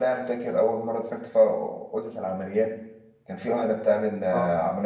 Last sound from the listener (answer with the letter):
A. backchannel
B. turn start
A